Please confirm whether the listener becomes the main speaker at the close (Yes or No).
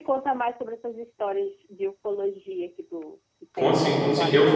Yes